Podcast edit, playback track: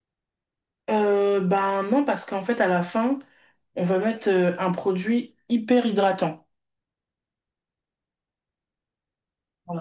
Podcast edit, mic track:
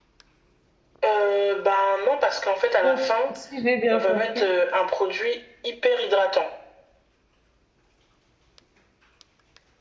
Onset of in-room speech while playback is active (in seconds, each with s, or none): 2.8 s